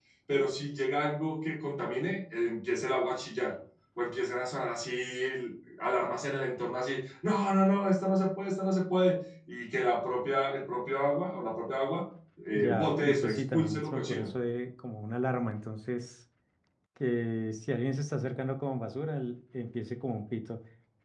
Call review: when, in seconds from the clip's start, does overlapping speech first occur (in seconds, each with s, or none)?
12.6 s